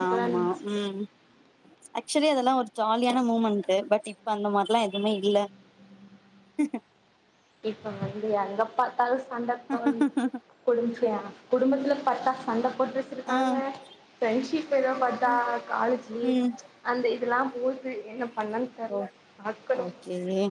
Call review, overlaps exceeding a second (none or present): none